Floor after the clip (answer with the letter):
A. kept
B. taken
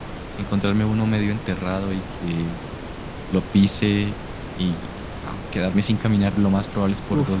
A